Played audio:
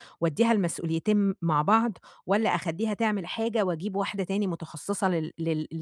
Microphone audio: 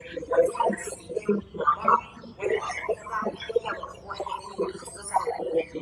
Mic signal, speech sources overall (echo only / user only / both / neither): echo only